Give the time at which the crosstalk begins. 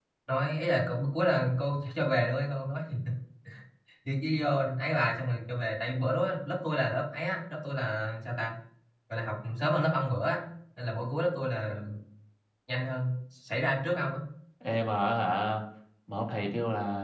none

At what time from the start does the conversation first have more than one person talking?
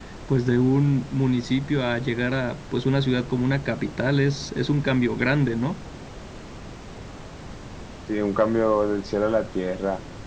none

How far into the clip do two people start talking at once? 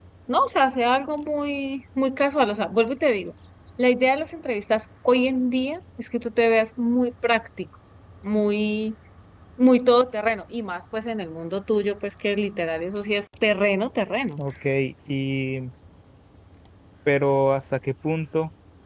none

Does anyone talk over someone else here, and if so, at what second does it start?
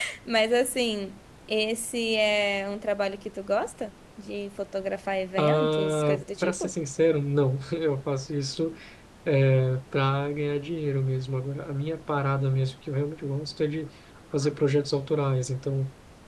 5.4 s

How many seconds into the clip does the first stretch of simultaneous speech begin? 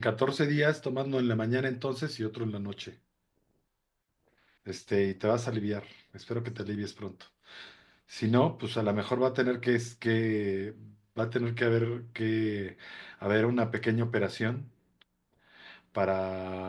none

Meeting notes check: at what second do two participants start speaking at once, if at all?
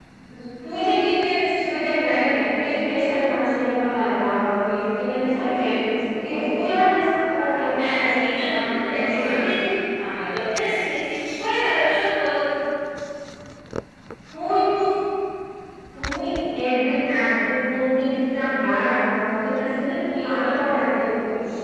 7.8 s

